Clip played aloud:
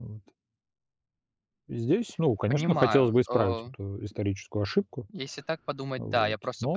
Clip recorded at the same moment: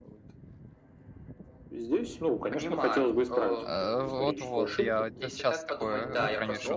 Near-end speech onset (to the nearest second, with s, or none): 4 s